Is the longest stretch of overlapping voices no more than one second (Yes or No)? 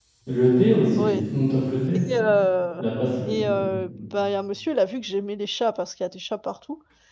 Yes